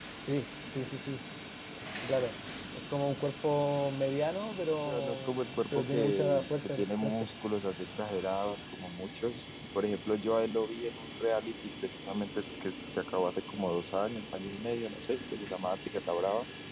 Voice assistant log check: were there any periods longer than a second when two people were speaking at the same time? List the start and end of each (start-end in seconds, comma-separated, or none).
4.8-7.3